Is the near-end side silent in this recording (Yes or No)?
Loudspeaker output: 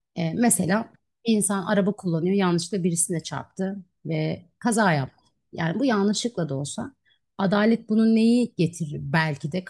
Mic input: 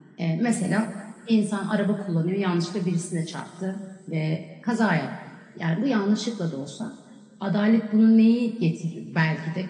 Yes